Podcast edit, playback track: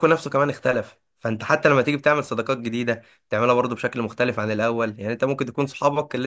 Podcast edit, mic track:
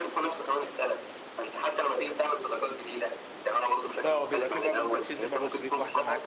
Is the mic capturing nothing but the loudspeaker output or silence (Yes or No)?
No